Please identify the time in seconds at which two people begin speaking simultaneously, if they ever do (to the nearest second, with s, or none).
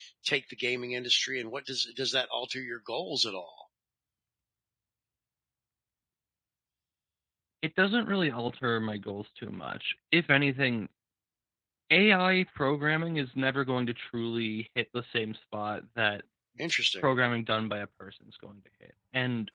none